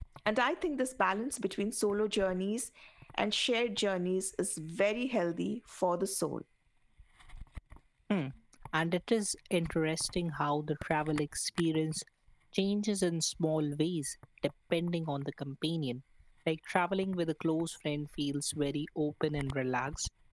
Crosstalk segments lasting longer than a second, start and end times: none

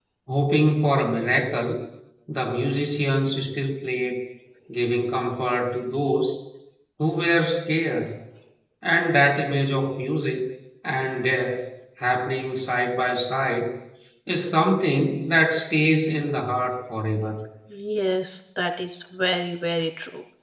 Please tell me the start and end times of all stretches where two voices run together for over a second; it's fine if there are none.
none

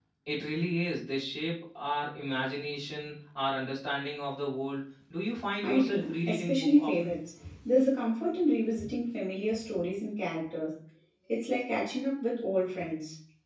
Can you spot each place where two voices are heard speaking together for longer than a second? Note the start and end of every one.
5.6-7.1

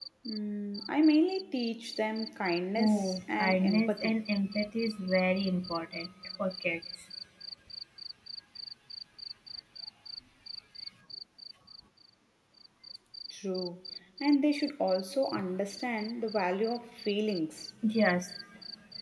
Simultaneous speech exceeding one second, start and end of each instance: 2.8-4.2

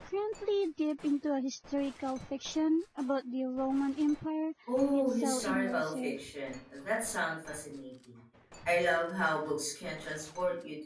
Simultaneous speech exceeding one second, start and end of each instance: 4.9-6.2

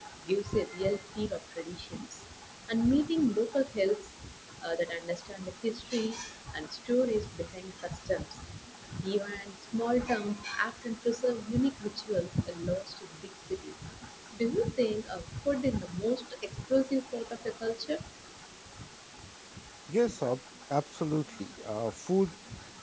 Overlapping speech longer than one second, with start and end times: none

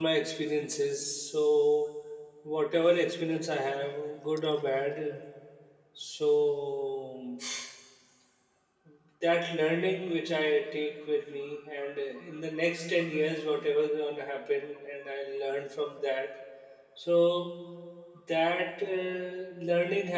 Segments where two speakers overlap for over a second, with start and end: none

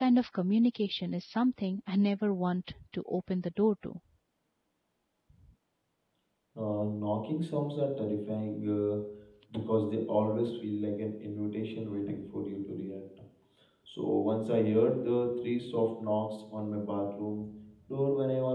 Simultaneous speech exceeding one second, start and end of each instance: none

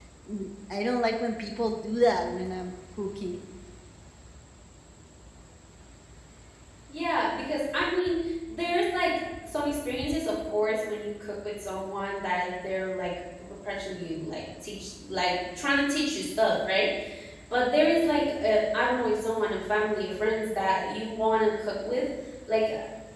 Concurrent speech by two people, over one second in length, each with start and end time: none

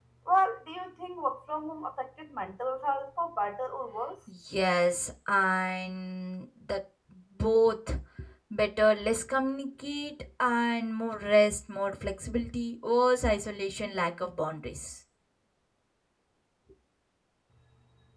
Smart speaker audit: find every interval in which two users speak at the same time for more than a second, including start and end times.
none

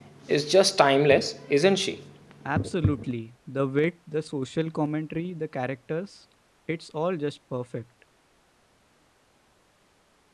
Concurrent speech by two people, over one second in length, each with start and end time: none

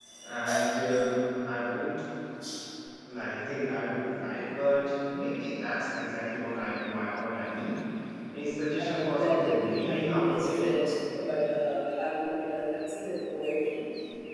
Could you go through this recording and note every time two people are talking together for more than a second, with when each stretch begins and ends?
8.8-10.7

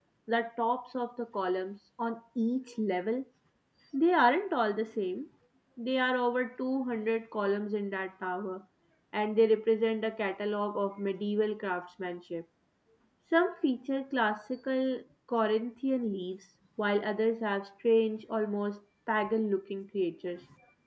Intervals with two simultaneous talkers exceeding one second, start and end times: none

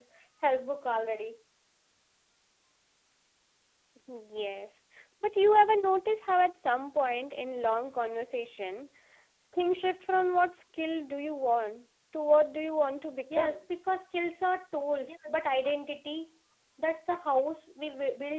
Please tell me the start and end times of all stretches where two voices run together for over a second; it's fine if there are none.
none

